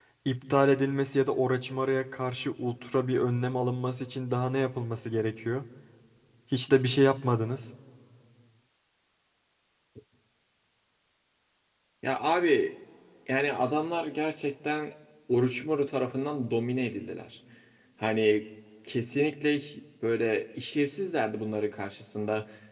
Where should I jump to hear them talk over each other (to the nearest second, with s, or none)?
none